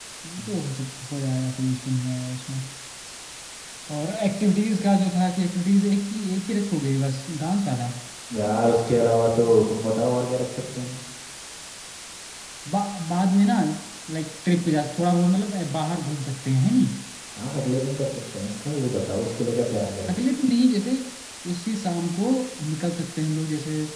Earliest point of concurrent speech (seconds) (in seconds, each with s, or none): none